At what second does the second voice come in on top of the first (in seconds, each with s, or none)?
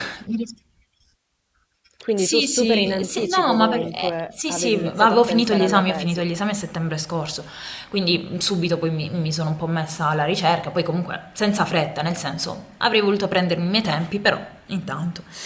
2.2 s